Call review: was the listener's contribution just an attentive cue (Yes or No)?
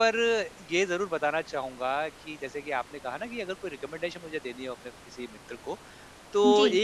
Yes